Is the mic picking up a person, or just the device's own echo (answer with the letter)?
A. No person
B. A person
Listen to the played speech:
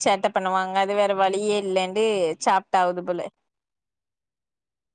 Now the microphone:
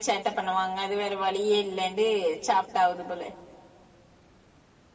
A